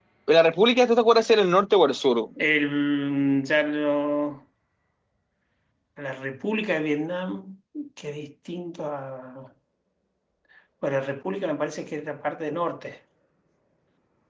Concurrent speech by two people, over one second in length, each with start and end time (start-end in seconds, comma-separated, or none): none